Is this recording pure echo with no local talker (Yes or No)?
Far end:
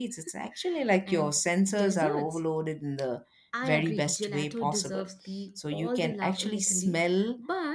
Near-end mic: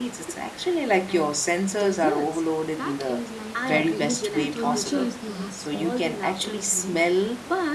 No